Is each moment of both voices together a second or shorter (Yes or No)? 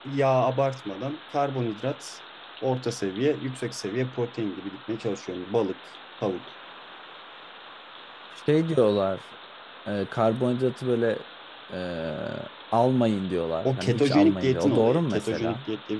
No